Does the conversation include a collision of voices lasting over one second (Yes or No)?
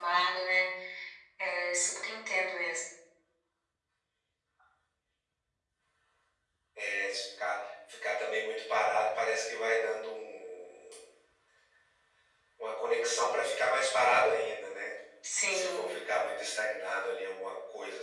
No